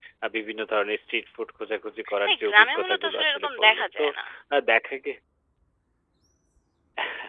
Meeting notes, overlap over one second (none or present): present